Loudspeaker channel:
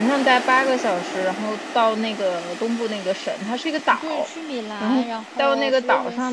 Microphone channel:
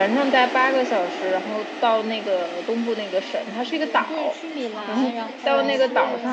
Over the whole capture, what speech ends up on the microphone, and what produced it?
both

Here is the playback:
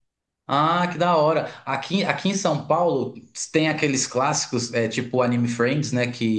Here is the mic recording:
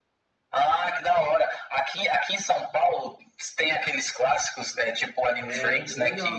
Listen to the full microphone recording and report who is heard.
both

